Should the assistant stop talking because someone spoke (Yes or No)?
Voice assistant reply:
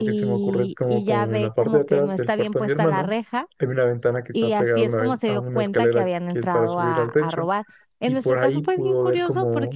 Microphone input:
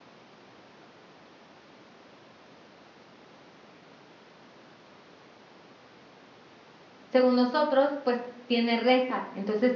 Yes